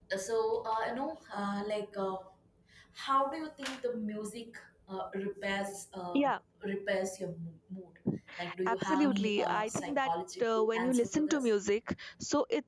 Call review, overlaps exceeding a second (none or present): present